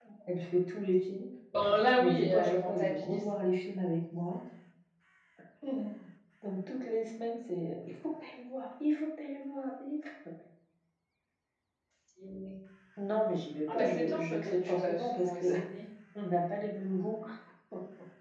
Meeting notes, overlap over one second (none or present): present